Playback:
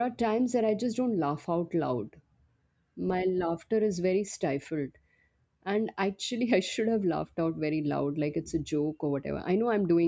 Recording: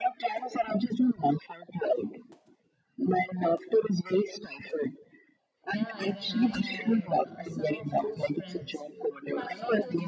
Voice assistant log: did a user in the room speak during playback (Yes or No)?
Yes